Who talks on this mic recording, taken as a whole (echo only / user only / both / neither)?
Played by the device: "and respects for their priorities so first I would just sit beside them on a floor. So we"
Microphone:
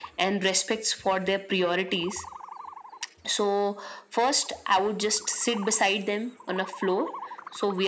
echo only